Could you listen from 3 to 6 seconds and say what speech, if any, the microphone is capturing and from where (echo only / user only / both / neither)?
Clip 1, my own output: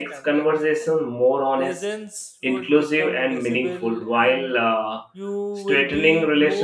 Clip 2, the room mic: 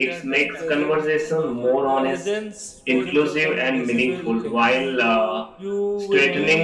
both